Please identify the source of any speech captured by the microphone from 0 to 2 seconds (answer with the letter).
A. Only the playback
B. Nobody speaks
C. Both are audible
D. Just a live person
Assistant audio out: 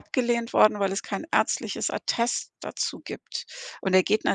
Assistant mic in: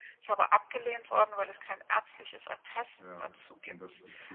A